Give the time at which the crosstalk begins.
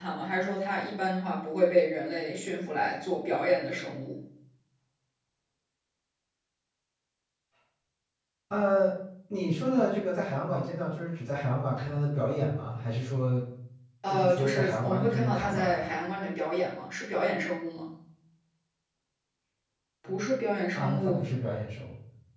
14 s

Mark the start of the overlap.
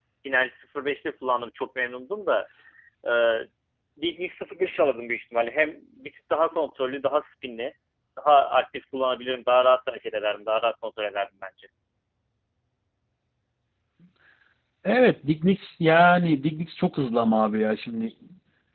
none

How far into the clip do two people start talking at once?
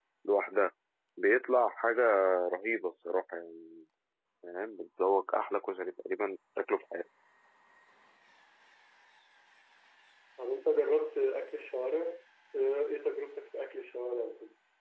none

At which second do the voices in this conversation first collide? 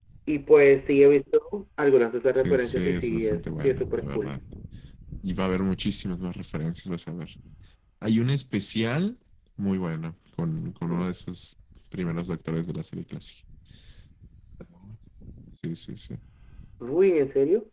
2 s

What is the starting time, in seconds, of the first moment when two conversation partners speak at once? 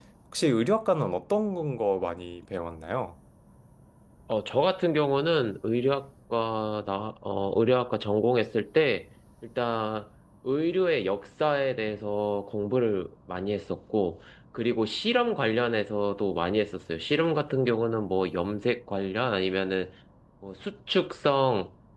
none

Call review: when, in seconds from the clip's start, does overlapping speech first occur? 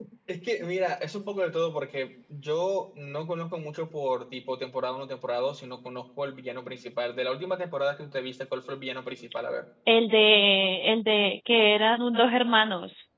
none

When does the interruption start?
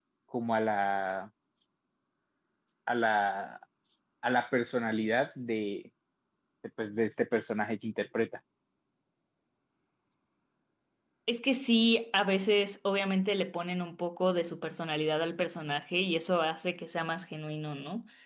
none

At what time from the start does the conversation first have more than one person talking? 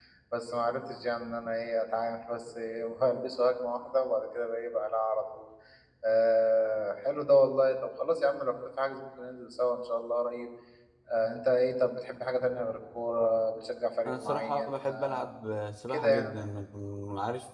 14 s

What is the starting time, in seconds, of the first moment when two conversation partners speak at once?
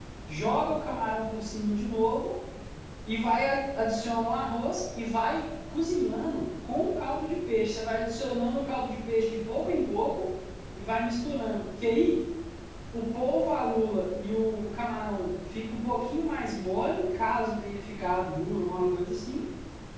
none

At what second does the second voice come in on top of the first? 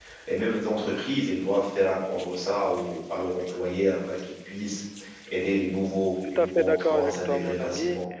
6 s

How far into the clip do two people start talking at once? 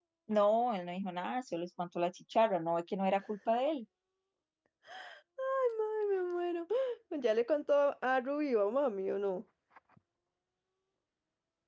none

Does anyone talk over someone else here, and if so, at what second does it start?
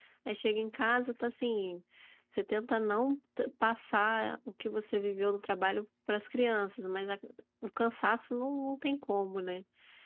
none

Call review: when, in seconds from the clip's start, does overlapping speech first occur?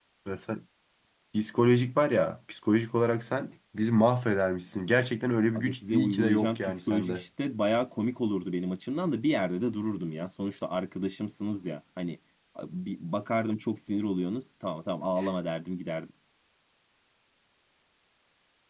6 s

